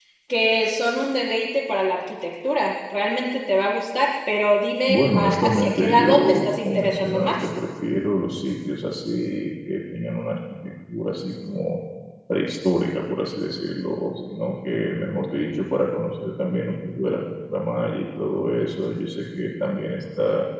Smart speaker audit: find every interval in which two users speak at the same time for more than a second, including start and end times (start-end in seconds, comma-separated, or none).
4.9-7.3